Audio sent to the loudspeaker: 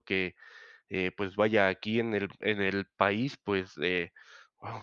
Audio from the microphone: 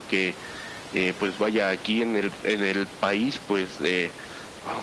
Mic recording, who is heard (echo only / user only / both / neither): echo only